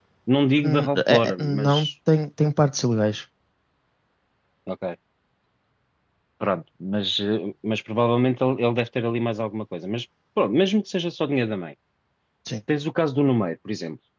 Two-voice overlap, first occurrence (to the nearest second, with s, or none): 1 s